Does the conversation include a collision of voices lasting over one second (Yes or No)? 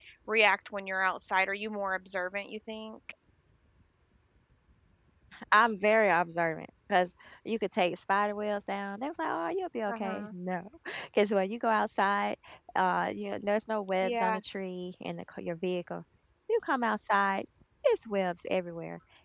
No